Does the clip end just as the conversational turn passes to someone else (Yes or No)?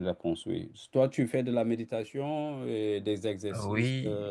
Yes